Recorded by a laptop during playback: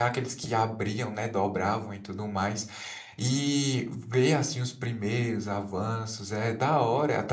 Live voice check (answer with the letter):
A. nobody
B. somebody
B